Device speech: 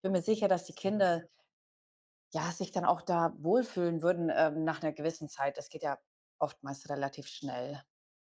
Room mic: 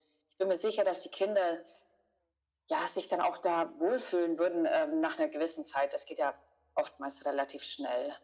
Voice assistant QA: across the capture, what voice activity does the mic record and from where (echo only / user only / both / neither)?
echo only